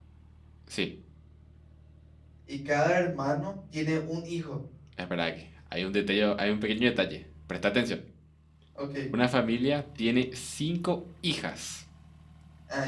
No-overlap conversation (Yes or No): Yes